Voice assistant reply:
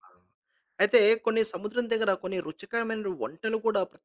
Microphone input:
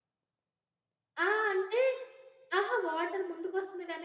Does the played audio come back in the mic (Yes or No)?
No